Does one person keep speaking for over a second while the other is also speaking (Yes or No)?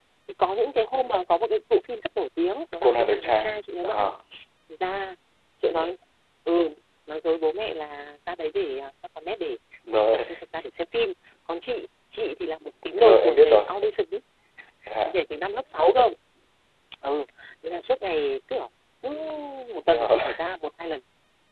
Yes